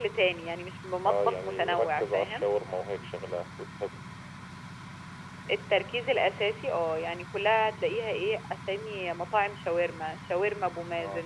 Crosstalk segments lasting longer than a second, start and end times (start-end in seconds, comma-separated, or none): 1.1-2.5